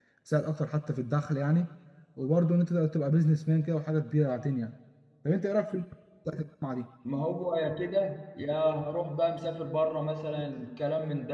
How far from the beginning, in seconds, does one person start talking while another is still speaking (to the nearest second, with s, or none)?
none